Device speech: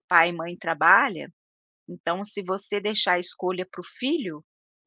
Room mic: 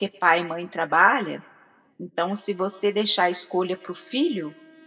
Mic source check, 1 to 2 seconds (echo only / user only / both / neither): echo only